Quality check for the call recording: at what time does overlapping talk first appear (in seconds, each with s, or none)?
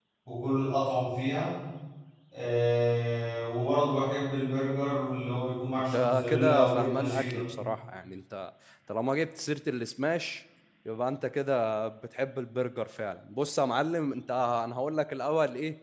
5.9 s